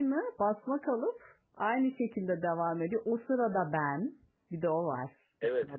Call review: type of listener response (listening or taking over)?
taking over